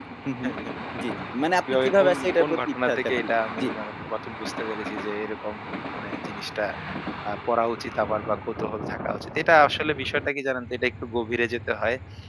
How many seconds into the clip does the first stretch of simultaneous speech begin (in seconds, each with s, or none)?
1.9 s